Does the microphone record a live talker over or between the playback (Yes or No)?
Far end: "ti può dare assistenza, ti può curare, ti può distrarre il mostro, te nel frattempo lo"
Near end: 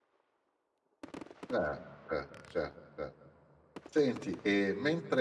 Yes